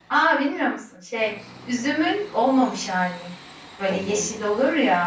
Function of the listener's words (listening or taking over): listening